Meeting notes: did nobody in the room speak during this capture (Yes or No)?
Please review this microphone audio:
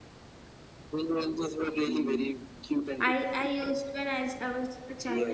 No